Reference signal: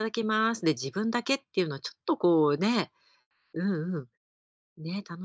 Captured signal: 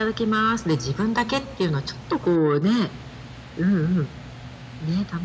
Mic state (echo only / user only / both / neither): echo only